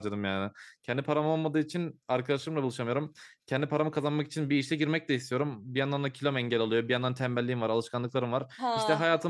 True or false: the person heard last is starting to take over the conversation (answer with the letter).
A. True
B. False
B